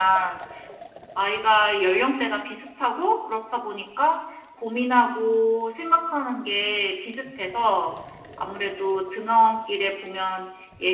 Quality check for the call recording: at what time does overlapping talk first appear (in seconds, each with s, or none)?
none